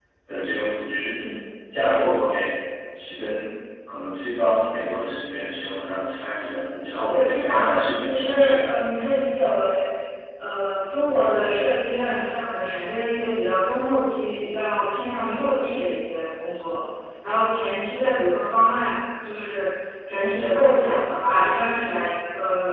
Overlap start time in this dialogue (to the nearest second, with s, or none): 7 s